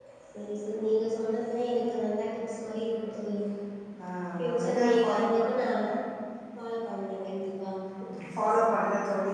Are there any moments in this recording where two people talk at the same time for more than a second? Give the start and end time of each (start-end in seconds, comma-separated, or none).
4.4-5.7